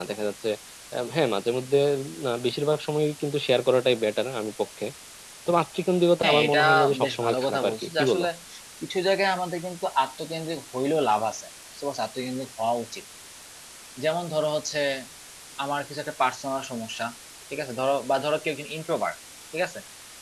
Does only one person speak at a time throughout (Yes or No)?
No